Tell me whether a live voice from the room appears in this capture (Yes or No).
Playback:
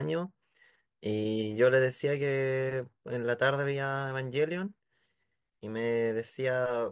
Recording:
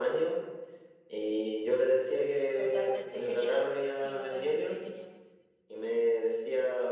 Yes